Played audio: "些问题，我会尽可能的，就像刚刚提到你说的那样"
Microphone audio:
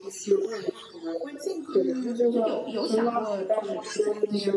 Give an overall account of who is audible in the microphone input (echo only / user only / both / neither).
both